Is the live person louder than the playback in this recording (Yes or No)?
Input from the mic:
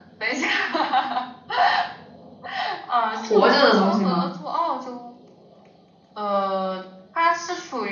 Yes